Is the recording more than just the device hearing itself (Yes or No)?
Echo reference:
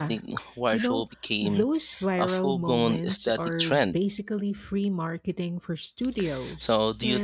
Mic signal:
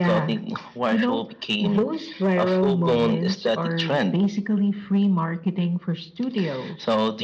No